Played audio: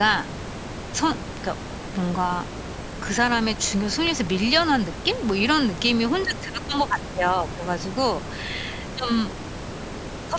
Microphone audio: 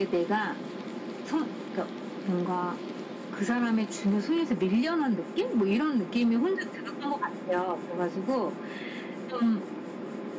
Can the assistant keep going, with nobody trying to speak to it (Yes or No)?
Yes